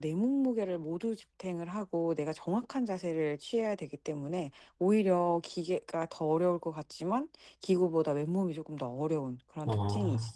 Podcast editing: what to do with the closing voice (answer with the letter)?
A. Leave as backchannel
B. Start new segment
B